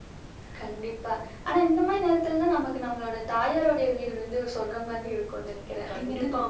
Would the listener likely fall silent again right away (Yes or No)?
No